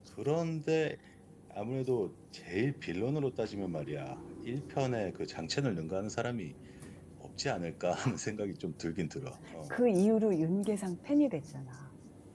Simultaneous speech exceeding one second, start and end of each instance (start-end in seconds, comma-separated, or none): none